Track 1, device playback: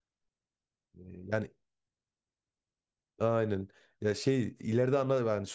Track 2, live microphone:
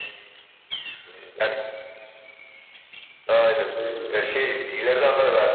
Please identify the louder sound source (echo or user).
echo